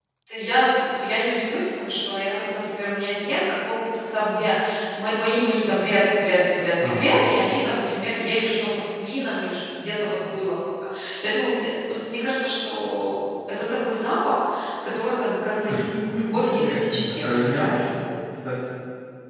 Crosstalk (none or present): present